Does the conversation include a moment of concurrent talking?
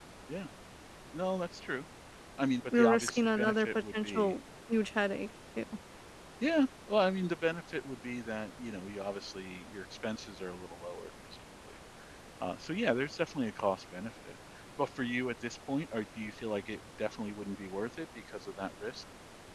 Yes, from 2.7 s

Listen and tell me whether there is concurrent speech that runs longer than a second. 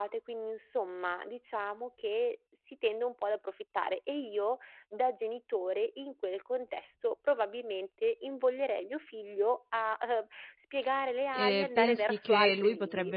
Yes, from 11.3 s

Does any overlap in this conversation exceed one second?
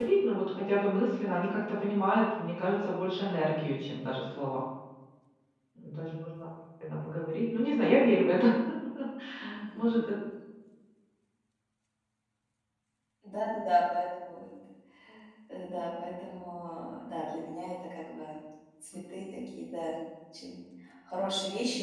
No

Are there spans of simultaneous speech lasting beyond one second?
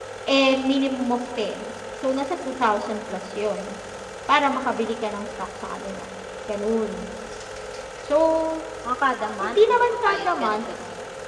Yes, from 9.4 s

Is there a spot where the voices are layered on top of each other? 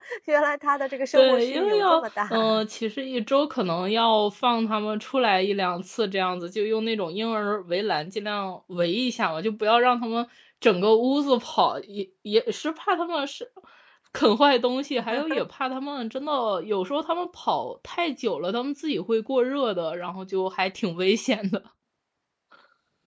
Yes, from 1.1 s

